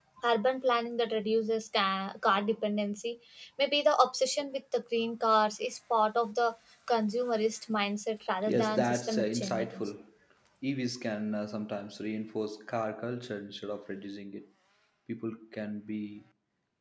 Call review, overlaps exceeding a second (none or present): present